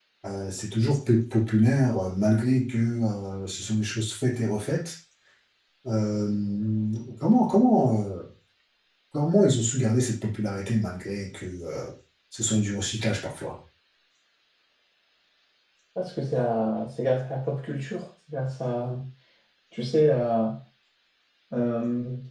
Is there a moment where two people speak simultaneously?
No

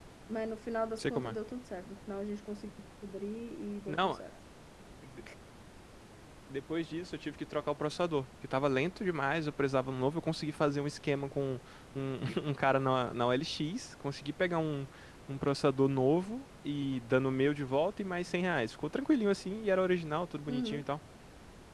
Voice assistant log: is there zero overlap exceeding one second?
Yes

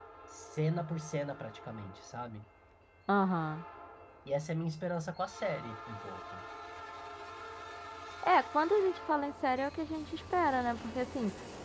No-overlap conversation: Yes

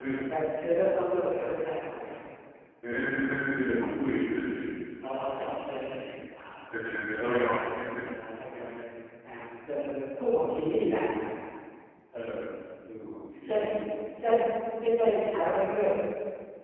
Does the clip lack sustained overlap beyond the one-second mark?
Yes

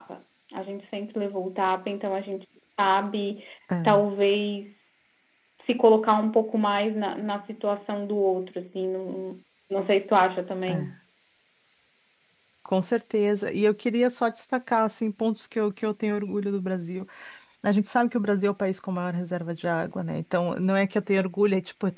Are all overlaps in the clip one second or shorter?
Yes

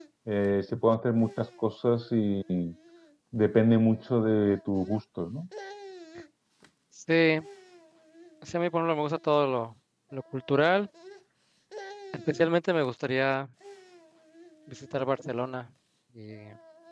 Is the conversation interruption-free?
Yes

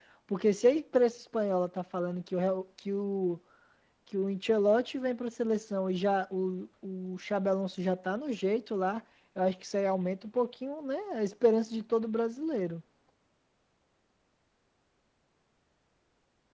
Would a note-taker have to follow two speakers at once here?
No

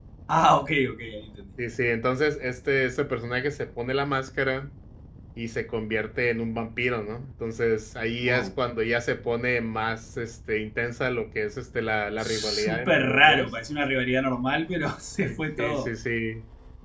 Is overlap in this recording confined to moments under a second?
No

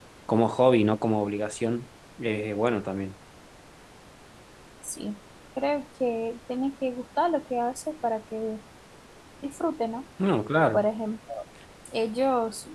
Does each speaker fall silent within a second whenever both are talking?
Yes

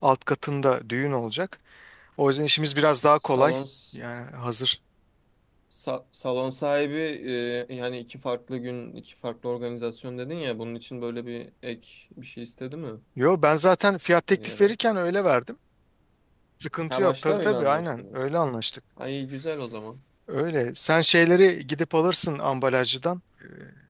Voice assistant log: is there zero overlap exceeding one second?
No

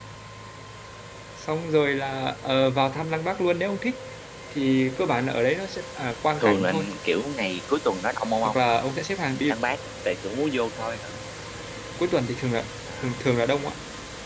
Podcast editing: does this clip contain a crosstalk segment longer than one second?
No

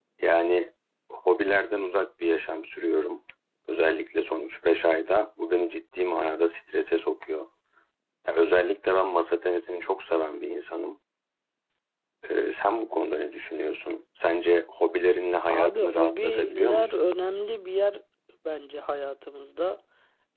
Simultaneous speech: Yes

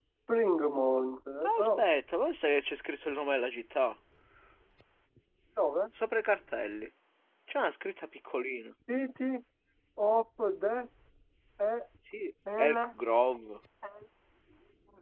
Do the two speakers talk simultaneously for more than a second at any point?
No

